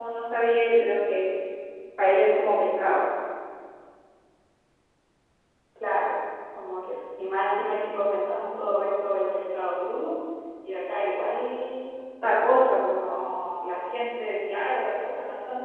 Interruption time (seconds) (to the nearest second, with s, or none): none